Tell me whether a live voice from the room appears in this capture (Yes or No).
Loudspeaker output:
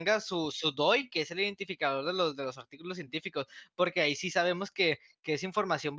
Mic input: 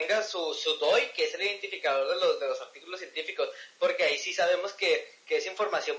No